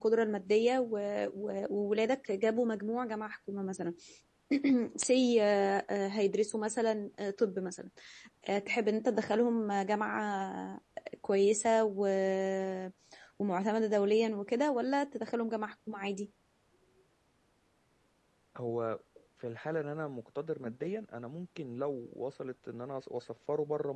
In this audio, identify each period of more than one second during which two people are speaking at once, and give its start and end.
none

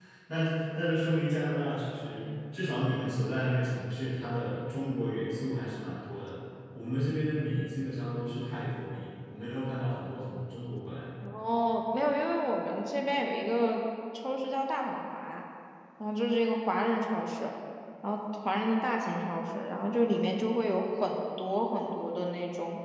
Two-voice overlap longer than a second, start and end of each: none

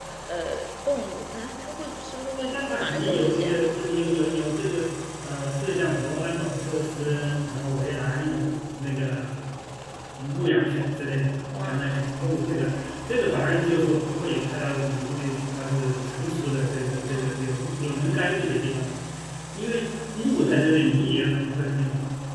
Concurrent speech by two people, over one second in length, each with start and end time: 2.4-3.6

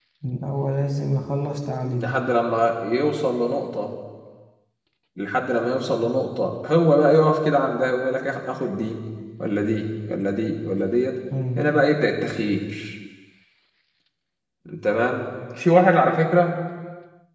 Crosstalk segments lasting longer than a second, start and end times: none

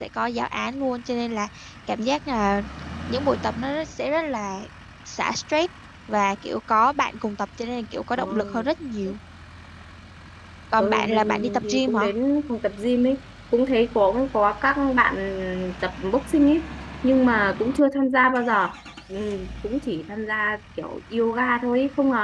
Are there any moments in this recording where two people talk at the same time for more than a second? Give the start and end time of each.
10.8-12.1

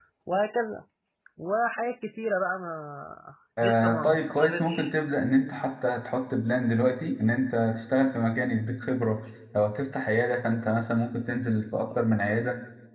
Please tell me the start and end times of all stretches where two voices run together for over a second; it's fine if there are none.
3.6-4.9

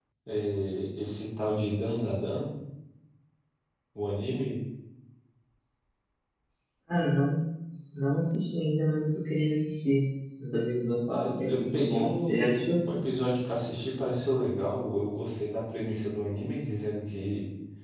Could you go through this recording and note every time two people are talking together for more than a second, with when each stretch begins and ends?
11.1-12.8

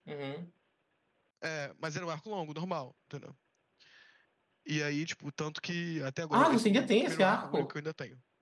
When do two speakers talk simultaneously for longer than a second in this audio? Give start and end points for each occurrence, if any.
6.3-7.7

